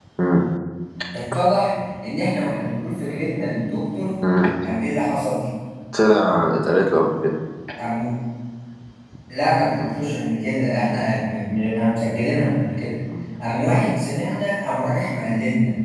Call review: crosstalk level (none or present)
none